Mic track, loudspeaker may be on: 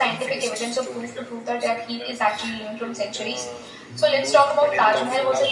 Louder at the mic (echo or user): echo